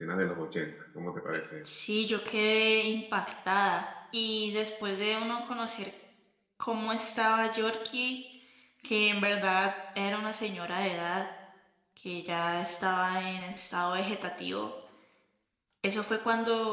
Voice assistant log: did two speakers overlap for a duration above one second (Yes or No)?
No